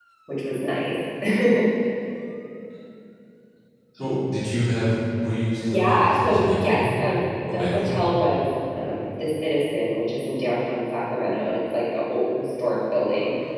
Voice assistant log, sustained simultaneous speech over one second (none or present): present